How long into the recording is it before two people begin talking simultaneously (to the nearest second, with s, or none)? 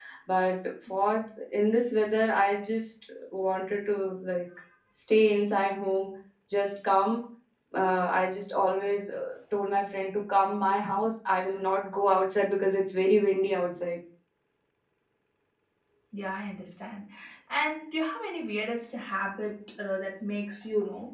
none